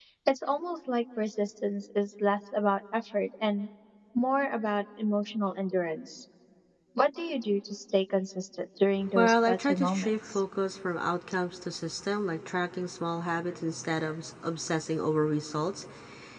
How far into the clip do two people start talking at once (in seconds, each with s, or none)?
9.2 s